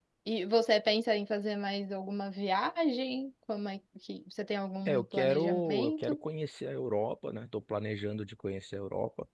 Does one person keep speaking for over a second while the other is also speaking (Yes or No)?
Yes